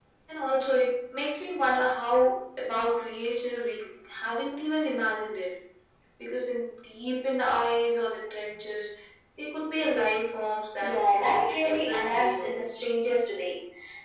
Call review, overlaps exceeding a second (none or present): present